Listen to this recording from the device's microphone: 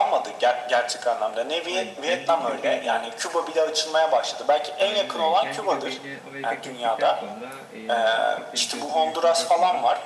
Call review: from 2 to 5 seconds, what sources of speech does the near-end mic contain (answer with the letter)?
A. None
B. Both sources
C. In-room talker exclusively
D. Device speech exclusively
B